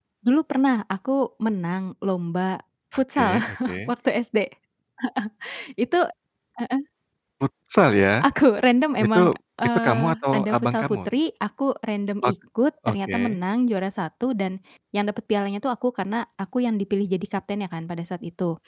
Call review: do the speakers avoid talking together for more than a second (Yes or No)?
No